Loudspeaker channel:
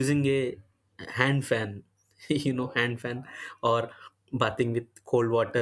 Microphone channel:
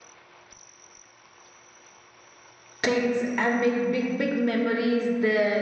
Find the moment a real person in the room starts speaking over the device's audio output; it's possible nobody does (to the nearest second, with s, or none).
3 s